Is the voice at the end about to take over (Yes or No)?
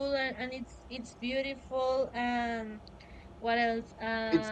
Yes